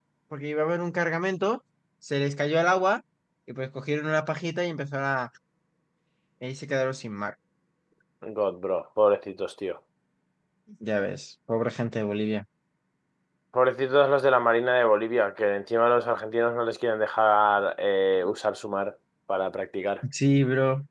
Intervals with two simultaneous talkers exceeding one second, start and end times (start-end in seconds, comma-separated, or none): none